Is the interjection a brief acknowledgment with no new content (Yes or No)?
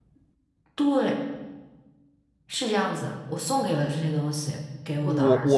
No